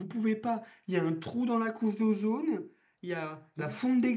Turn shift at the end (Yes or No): No